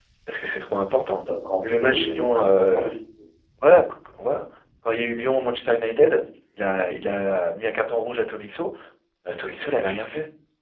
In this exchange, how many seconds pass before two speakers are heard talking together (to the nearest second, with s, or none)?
2 s